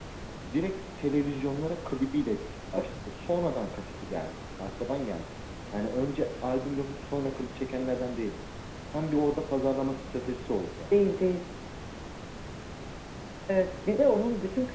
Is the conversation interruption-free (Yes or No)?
Yes